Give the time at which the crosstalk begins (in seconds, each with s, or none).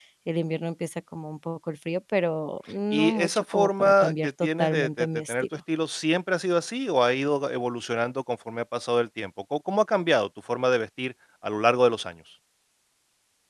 2.9 s